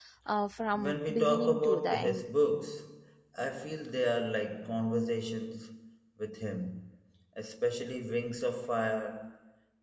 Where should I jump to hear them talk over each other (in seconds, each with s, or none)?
0.7 s